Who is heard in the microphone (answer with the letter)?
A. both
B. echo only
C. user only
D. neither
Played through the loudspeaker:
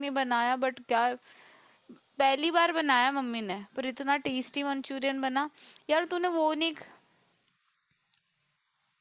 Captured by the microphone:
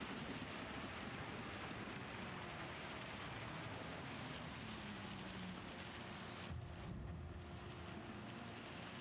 D